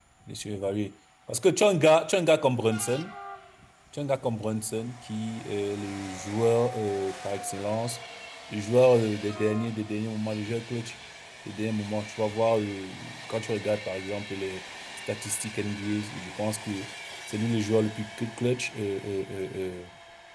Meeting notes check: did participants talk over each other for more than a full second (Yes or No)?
No